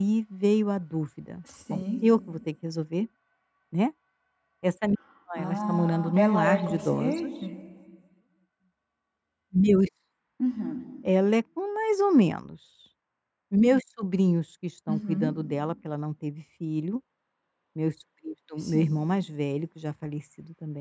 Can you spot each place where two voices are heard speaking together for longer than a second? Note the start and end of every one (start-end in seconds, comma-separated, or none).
5.4-7.3